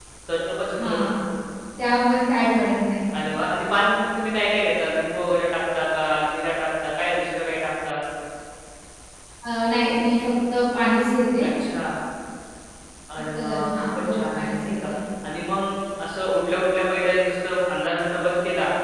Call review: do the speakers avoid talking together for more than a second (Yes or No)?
No